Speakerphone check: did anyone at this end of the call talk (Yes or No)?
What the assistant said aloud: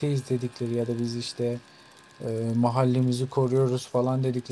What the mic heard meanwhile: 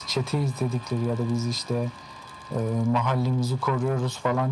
No